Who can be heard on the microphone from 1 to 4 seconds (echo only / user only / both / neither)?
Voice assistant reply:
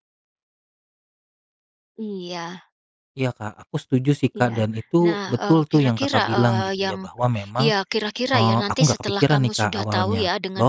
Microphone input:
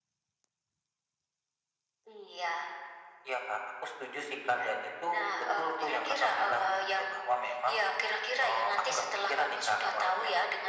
echo only